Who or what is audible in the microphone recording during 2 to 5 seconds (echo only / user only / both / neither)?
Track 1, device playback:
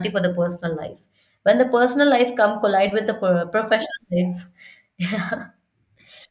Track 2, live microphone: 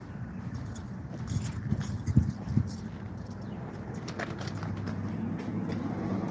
neither